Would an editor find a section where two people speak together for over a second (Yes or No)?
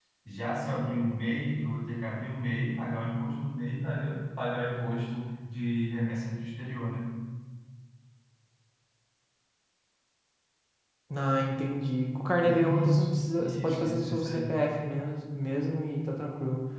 Yes